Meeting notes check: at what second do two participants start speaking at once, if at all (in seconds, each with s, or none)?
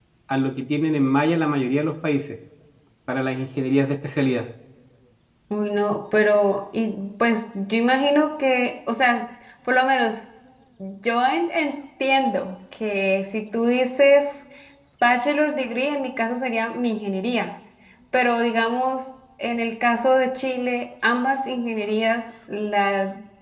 none